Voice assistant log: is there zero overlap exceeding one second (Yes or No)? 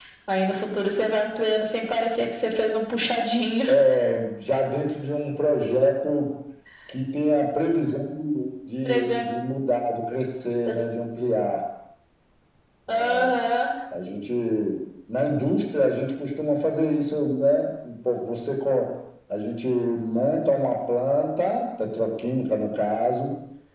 Yes